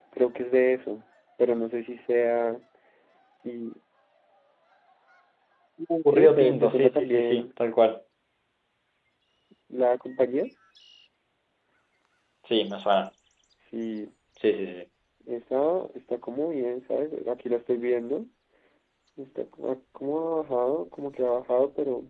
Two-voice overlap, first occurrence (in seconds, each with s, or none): 6.2 s